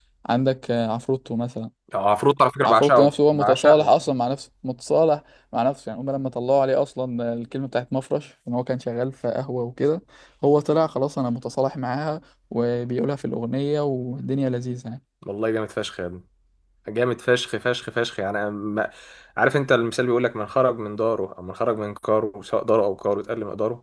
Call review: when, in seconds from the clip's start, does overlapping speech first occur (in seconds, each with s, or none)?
2.6 s